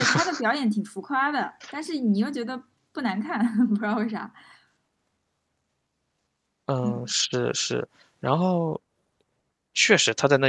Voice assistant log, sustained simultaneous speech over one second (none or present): none